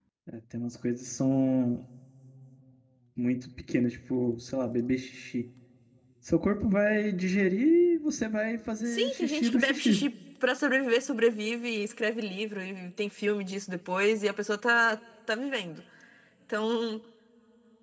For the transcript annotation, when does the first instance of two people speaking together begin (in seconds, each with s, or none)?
8.9 s